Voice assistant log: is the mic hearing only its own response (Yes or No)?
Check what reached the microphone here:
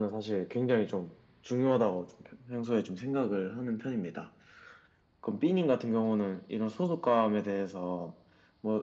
Yes